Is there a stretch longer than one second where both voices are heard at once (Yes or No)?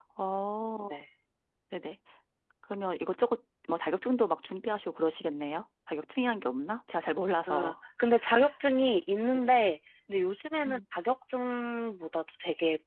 No